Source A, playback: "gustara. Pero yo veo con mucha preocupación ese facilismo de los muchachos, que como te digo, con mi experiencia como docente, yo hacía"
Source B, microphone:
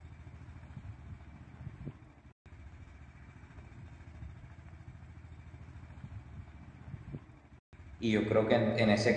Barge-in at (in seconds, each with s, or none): 8.0 s